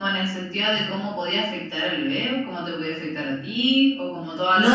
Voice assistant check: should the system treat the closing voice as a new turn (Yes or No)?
Yes